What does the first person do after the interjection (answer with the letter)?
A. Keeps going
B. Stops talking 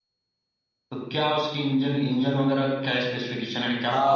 B